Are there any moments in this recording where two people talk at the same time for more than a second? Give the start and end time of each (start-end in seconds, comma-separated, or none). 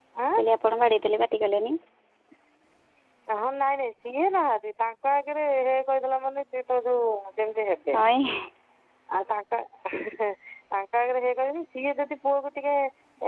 none